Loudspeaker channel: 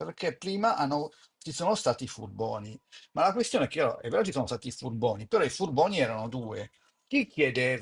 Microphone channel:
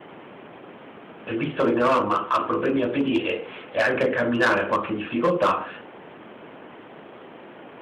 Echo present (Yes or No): No